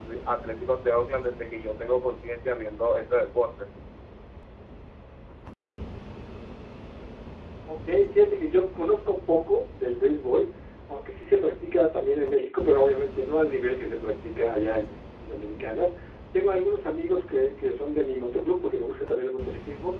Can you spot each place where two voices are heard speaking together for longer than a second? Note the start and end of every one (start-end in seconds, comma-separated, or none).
none